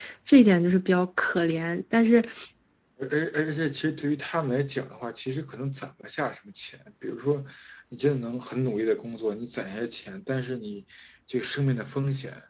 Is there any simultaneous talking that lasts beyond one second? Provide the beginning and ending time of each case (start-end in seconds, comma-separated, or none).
none